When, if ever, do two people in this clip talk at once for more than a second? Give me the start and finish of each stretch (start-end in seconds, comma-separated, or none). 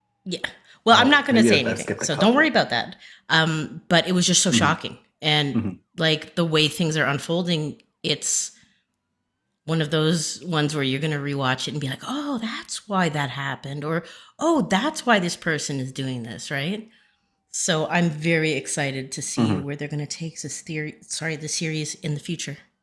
0.9-2.5